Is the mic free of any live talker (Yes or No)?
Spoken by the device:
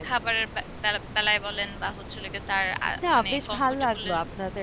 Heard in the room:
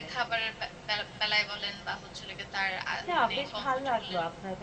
No